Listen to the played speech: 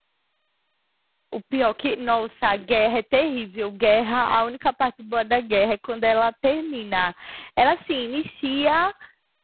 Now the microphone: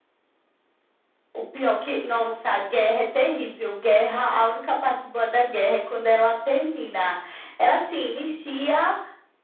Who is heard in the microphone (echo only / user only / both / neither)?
echo only